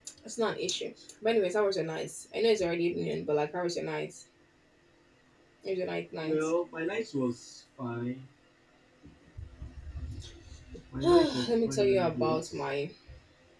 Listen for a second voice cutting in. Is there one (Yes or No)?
Yes